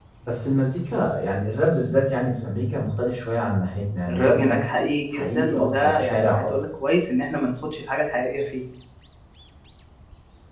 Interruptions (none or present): present